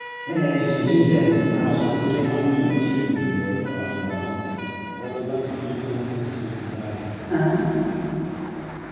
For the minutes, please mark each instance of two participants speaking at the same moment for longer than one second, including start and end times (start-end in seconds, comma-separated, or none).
0.6-2.9